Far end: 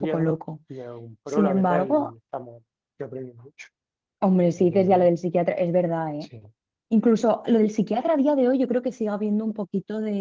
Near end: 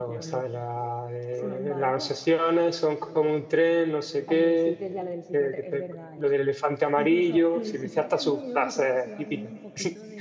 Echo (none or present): present